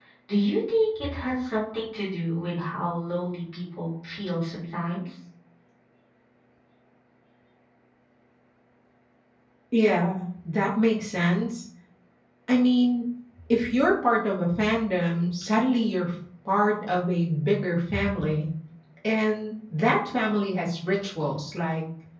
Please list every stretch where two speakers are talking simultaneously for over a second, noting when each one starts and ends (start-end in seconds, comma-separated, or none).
none